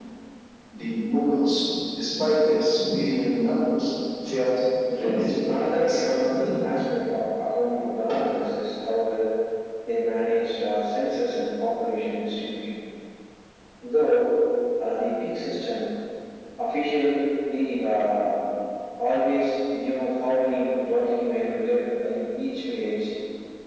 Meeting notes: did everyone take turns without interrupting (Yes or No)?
No